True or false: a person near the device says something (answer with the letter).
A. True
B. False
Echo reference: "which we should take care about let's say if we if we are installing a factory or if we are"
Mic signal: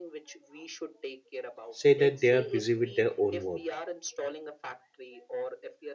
A